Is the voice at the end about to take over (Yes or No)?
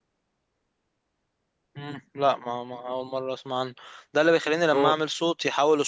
No